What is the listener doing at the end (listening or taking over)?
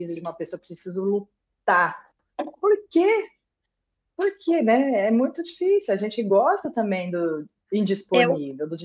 taking over